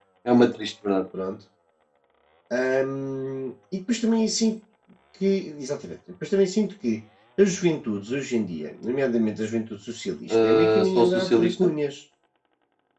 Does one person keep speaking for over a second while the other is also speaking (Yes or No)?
Yes